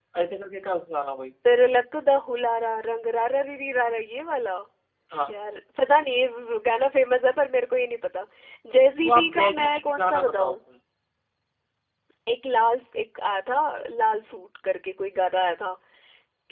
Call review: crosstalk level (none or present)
present